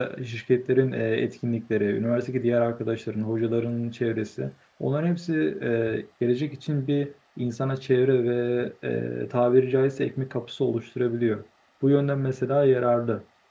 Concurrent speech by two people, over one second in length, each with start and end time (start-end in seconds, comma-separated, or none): none